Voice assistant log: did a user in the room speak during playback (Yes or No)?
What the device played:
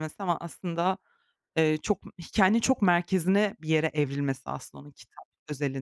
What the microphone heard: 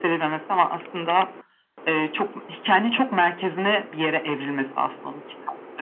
No